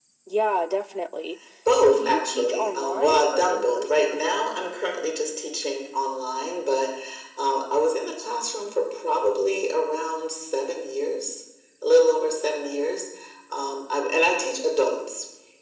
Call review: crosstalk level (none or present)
present